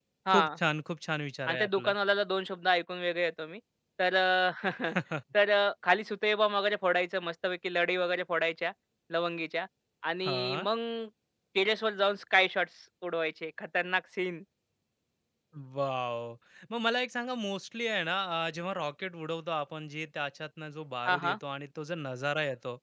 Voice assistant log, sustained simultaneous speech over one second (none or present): none